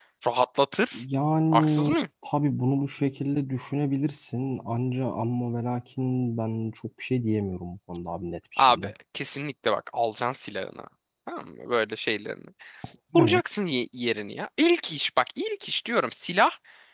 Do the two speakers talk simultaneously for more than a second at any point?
No

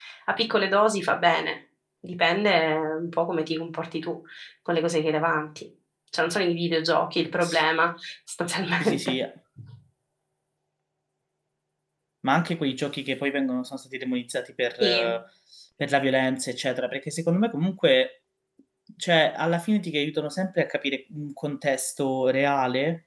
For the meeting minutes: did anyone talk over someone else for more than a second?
No

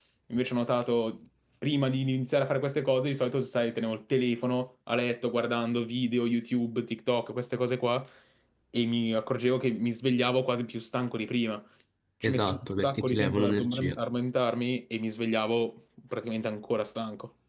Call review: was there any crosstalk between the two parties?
Yes, from 12.2 s

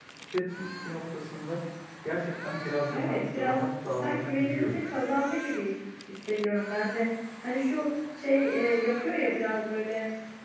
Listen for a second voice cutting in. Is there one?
Yes, from 2.9 s

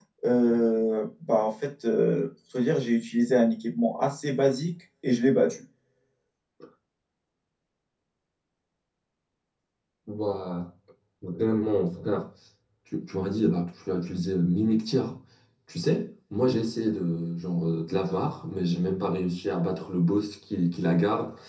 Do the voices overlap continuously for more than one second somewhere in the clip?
No

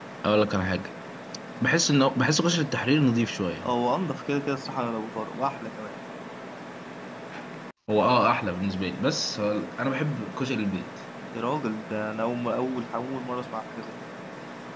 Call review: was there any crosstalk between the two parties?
No

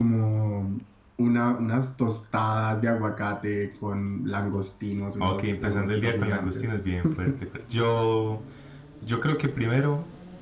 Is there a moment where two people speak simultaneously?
Yes, from 5.2 s

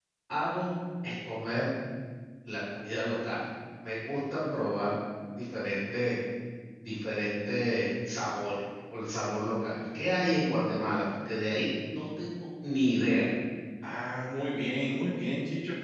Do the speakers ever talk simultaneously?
No

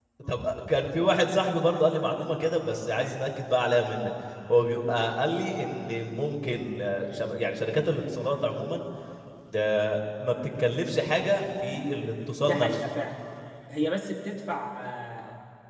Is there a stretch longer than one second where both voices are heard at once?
No

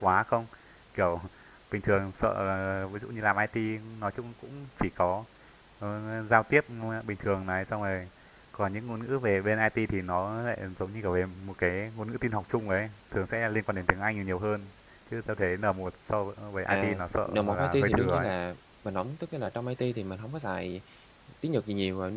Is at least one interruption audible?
Yes, from 16.7 s

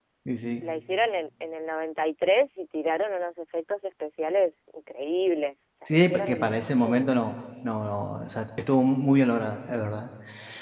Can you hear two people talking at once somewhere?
Yes, from 5.9 s

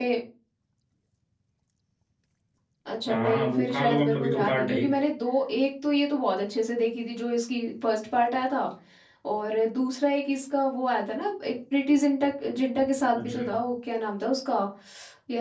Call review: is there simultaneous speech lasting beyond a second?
Yes, from 3.1 s

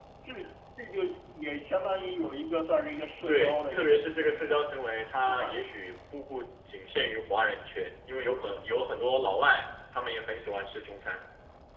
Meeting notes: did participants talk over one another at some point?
Yes, from 3.3 s

